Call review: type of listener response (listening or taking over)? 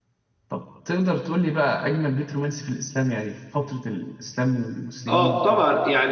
taking over